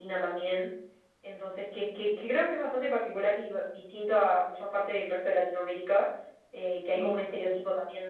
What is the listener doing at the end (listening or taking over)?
listening